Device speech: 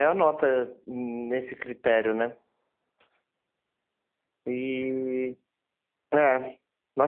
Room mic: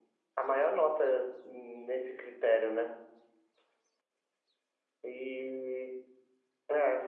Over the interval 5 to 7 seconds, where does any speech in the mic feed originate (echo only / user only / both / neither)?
echo only